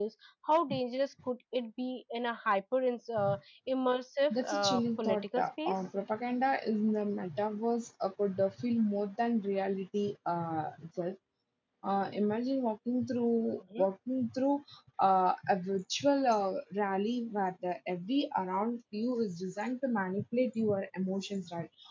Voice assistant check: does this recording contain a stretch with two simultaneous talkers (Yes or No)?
Yes